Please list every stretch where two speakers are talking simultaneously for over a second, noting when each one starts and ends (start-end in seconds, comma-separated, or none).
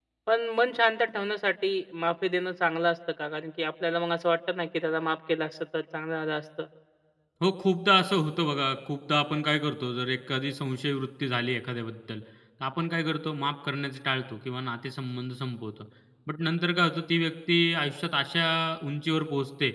none